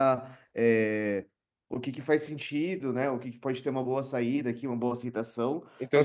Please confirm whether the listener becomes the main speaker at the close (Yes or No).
Yes